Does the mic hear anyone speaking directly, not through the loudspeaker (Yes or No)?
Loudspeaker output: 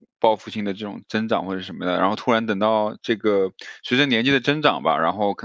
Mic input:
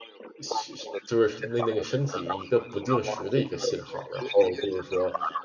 Yes